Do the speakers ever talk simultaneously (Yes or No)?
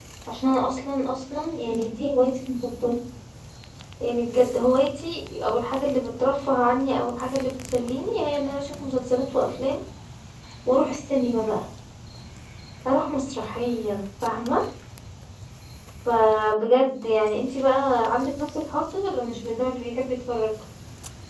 No